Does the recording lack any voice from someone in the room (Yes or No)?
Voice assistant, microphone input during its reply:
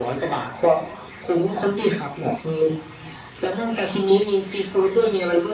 Yes